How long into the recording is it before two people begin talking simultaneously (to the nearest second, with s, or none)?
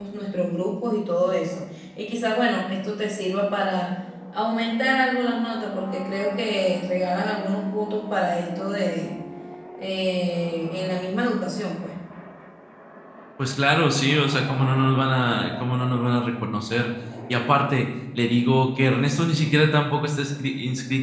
none